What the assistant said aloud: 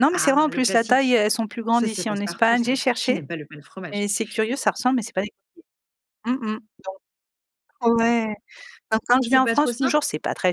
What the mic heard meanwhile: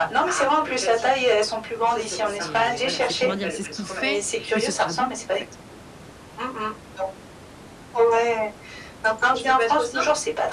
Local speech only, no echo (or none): C'est, voilà, c'est primordial. C'est ce qui fait que ce sera bon, en fait.